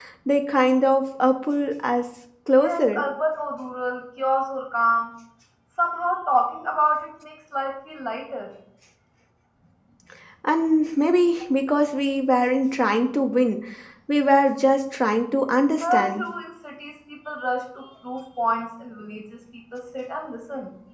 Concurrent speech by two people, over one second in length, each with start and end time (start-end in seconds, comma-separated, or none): none